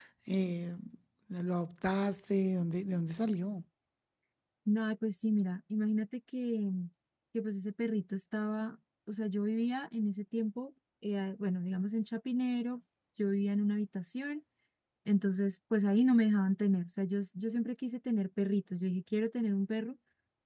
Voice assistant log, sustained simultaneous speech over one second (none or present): none